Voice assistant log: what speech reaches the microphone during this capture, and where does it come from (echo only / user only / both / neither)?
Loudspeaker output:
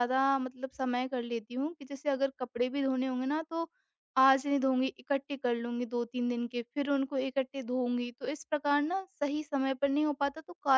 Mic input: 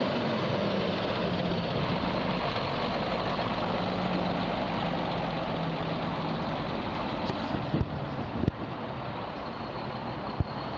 neither